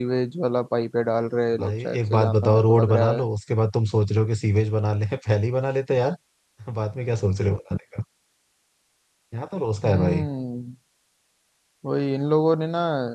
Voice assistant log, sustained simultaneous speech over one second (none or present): present